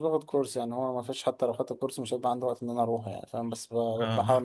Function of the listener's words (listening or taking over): listening